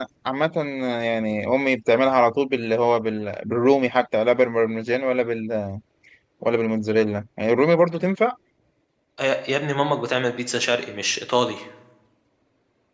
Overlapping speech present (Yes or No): No